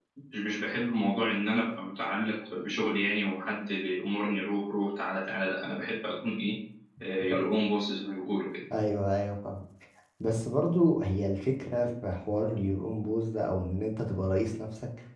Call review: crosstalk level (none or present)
none